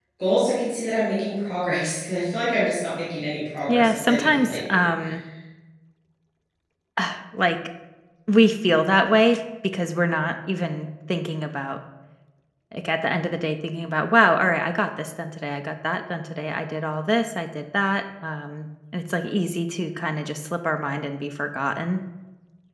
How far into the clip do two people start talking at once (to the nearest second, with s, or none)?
4 s